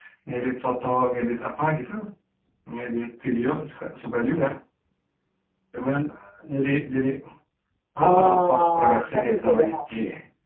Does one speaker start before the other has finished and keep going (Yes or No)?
Yes